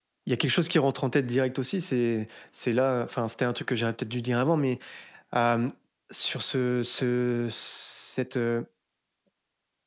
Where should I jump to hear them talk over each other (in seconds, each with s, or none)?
none